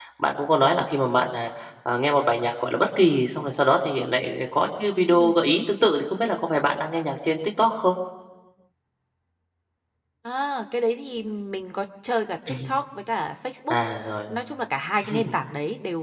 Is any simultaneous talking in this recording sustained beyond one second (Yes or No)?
No